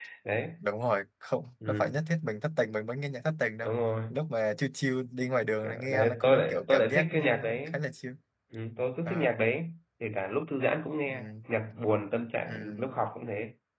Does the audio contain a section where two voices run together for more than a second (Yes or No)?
Yes